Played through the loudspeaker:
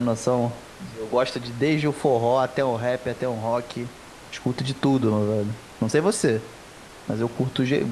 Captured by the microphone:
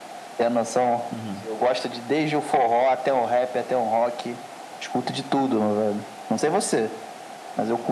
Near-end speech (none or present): present